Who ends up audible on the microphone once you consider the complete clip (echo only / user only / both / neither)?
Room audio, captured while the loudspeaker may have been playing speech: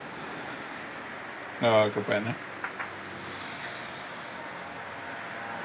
user only